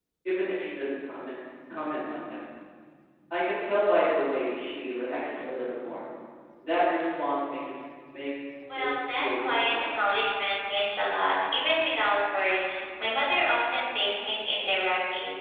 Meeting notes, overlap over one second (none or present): present